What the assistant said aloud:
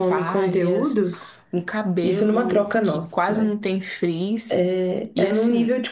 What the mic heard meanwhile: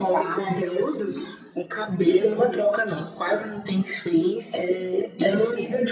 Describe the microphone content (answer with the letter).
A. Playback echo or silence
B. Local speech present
A